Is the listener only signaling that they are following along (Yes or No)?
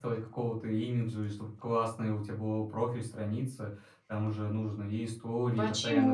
No